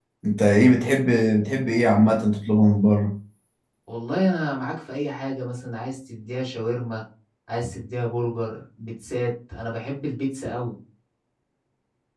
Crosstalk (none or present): none